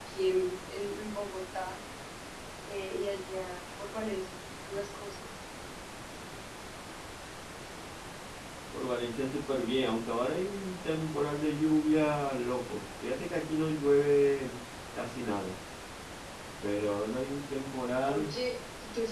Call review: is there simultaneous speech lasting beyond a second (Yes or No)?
No